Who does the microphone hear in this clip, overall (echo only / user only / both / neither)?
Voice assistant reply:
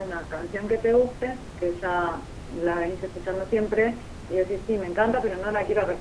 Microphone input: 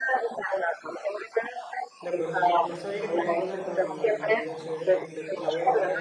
both